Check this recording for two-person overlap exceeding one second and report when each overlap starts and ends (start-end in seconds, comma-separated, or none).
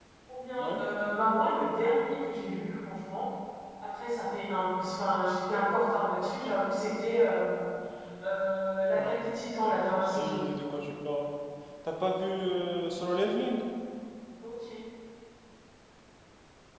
none